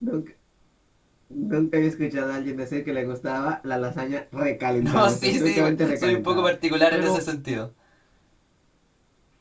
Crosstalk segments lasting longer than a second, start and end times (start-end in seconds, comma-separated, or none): 4.8-6.5